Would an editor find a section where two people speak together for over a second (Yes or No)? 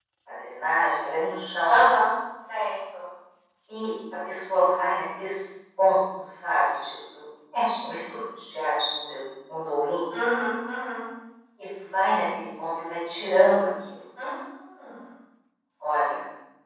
No